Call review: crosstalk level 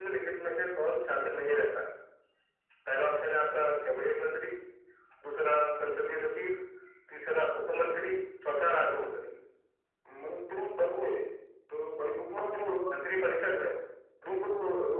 none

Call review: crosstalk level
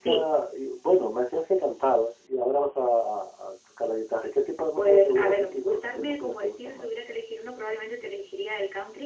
present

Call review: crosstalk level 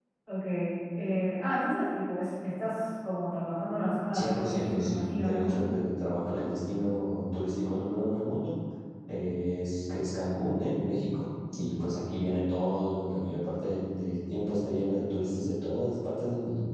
present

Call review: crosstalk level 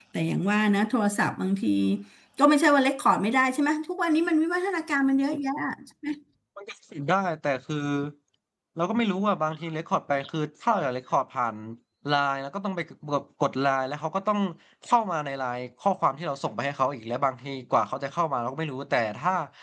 none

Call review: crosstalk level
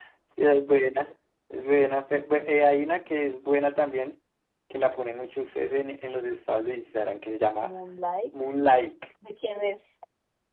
none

